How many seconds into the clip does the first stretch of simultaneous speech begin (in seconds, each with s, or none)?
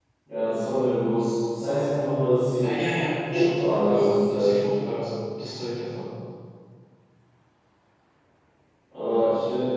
3.3 s